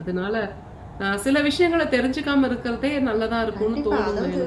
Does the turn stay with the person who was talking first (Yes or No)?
No